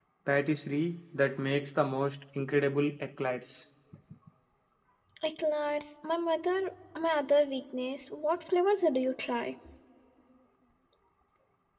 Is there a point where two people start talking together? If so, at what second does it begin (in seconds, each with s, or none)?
none